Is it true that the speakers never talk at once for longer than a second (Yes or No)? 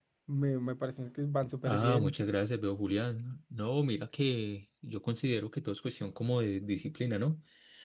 Yes